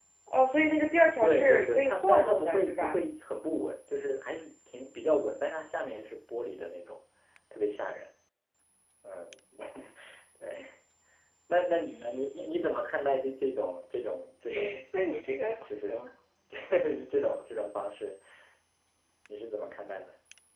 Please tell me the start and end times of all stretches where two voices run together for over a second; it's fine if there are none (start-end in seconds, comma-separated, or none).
1.2-3.0